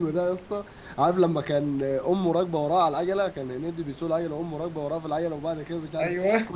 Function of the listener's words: listening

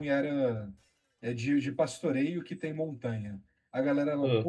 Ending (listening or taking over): listening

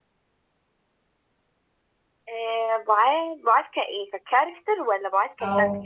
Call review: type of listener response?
taking over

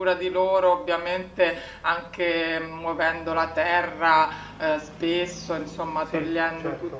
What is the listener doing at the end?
listening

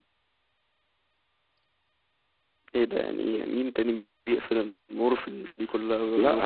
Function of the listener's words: taking over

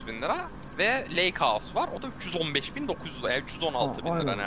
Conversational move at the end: taking over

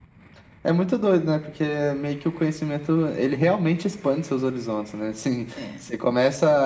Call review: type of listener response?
listening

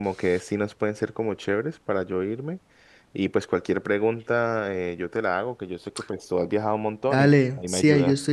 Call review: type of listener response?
taking over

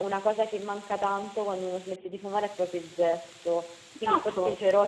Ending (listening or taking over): listening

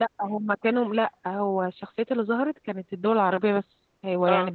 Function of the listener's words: listening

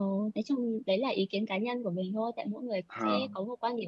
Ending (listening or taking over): listening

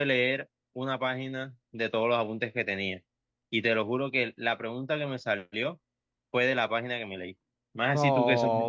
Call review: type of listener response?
taking over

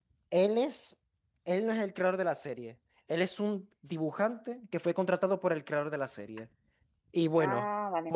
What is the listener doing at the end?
listening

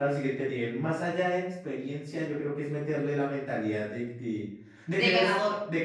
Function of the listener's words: listening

